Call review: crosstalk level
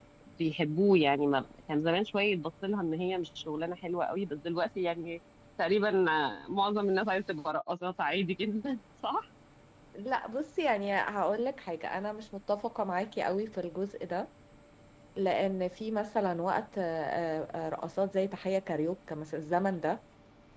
none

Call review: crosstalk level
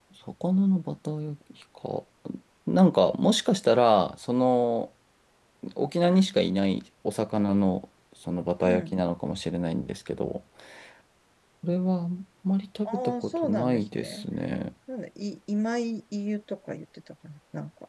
present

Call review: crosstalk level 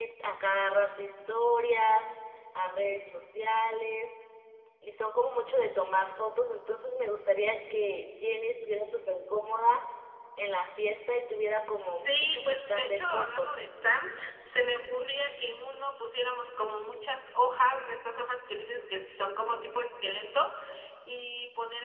present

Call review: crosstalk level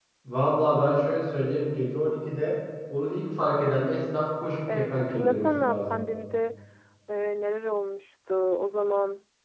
present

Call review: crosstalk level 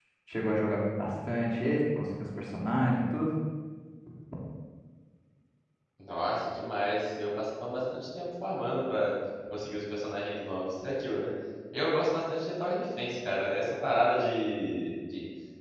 none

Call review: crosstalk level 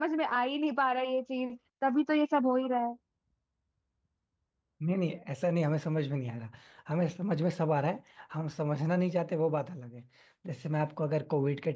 none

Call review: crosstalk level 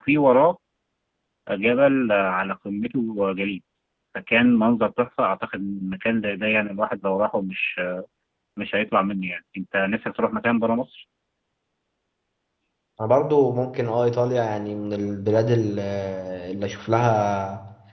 none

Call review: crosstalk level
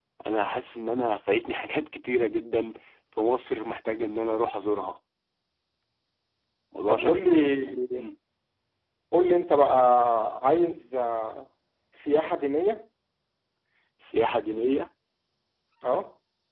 present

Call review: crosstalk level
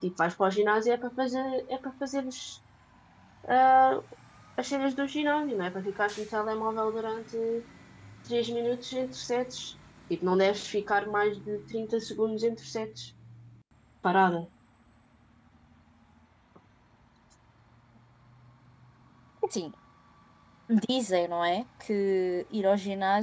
none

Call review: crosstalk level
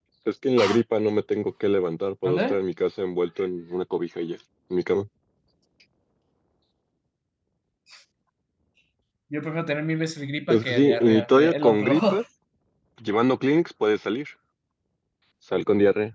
present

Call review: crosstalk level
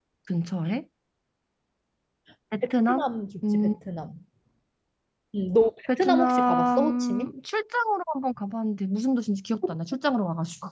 present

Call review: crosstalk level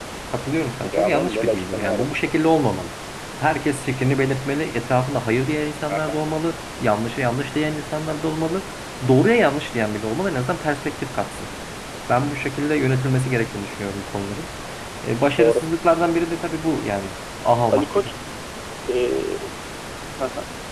present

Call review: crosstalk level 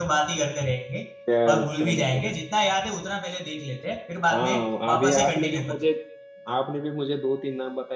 present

